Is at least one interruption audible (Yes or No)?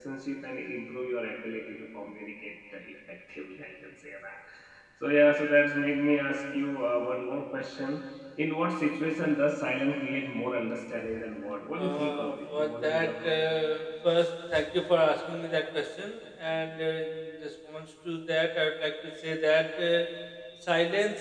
Yes